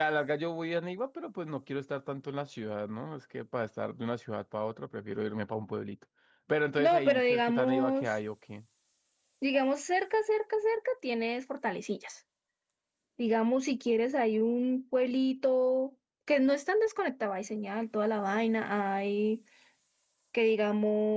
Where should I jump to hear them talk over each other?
7 s

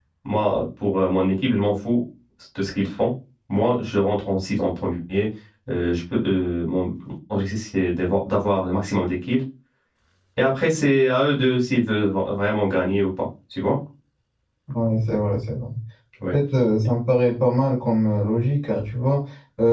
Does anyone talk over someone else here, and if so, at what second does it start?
none

